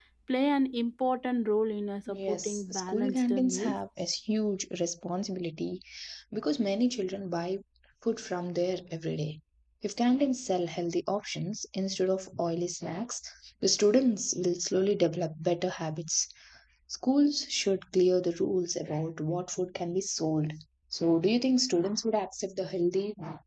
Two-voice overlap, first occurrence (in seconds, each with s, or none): 2.1 s